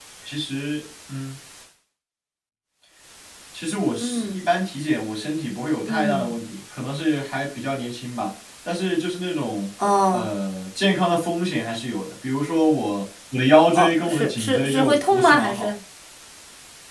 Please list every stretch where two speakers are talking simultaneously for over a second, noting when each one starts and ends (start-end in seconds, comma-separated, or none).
13.8-15.7